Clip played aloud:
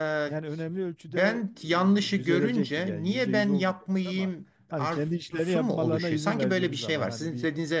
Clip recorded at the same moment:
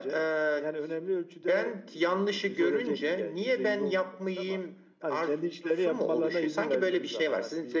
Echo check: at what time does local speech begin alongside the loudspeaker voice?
none

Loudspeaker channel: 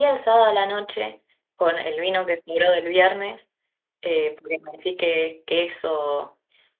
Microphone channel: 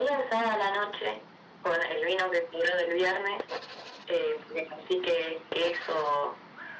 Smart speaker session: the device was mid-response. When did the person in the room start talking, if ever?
none

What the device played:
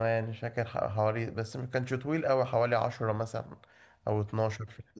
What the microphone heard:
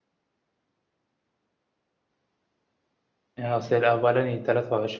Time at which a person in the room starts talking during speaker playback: 3.4 s

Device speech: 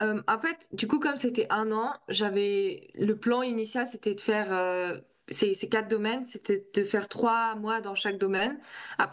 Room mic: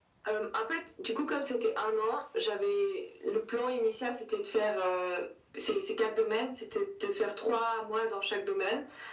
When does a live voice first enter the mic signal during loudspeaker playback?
none

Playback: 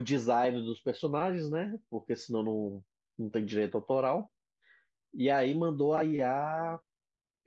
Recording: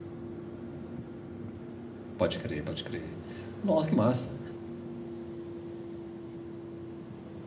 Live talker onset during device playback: 2.2 s

